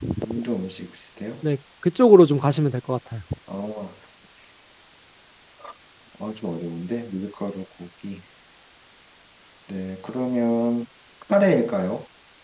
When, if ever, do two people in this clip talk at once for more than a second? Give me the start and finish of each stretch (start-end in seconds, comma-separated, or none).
none